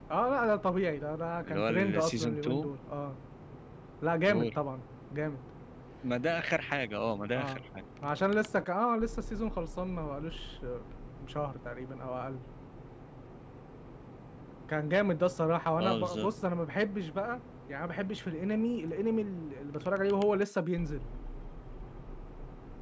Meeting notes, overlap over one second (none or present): present